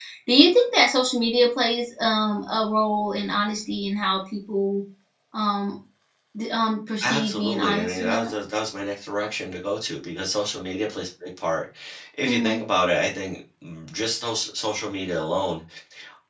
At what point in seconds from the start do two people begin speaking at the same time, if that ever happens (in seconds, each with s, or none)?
7.0 s